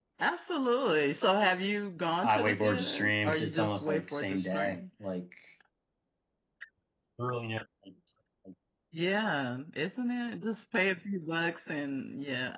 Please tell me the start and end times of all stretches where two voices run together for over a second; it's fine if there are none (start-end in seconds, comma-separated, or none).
2.2-4.8